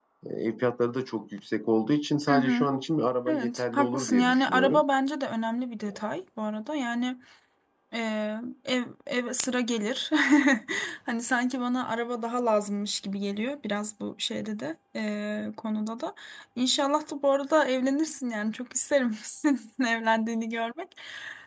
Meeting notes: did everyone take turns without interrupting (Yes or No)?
No